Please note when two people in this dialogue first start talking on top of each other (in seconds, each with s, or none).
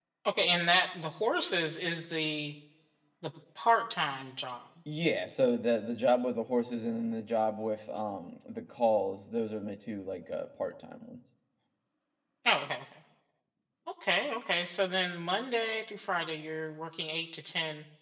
none